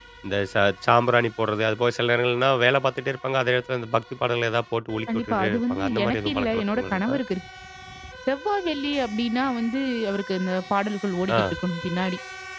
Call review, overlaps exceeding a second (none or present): present